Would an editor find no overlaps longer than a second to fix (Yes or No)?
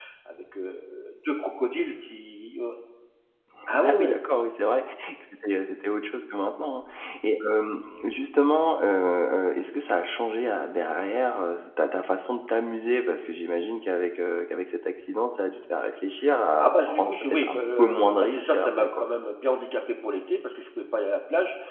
No